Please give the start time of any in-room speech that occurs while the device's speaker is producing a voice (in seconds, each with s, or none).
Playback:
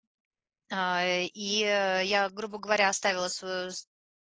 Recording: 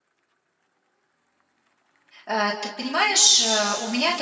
2.2 s